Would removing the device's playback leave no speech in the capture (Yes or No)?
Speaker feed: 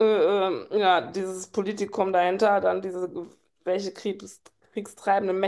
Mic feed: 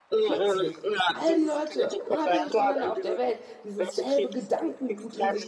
No